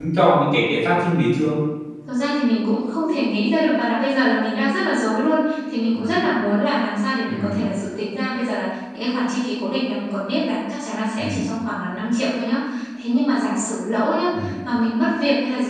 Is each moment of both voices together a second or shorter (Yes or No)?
Yes